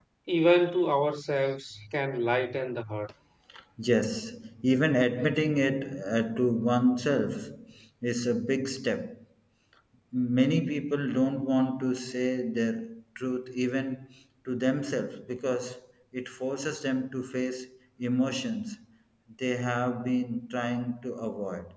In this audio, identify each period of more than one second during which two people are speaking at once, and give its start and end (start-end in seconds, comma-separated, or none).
none